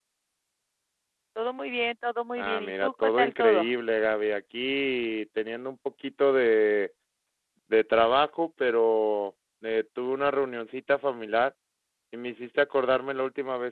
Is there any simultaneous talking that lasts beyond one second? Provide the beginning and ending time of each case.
2.4-3.7

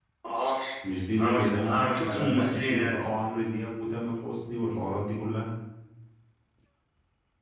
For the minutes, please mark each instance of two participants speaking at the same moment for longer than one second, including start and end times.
1.2-3.2

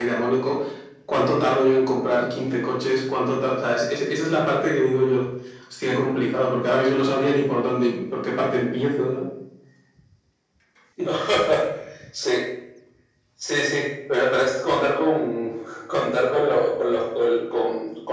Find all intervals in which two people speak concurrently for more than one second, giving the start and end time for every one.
none

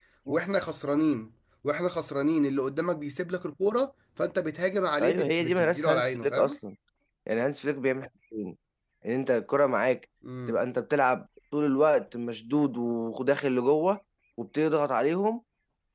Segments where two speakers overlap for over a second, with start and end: 5.0-6.6

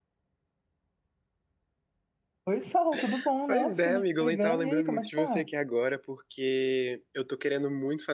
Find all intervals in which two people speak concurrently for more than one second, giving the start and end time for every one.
3.5-5.5

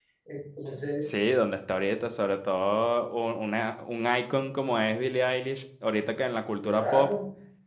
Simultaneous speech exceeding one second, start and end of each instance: none

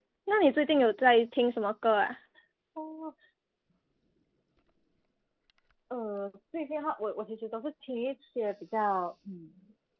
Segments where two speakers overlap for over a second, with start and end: none

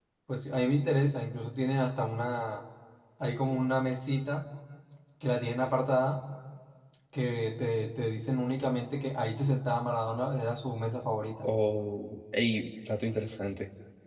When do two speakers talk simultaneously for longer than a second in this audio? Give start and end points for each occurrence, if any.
none

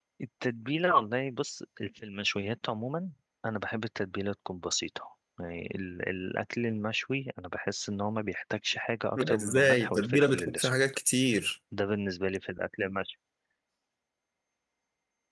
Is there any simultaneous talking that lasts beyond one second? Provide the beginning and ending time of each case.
9.2-10.7

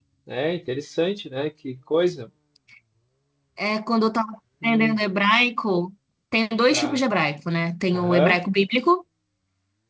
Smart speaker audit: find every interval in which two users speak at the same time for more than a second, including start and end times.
none

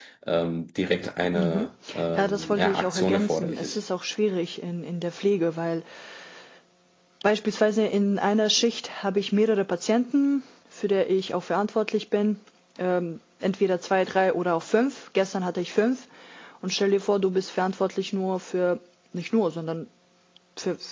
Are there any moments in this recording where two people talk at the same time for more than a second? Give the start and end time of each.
2.2-3.8

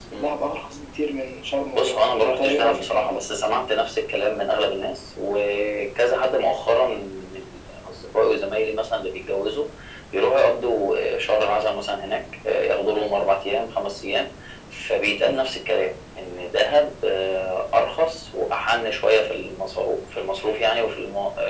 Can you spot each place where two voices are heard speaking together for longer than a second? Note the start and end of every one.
1.7-3.2

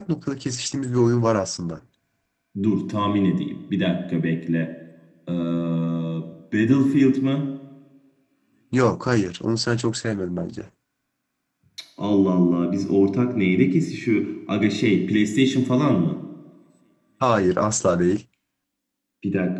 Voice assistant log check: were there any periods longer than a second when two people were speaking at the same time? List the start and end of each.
none

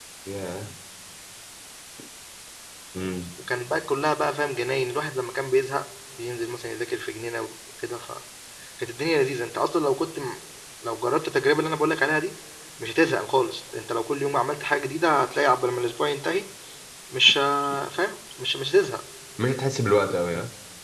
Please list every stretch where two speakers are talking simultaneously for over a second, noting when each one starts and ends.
none

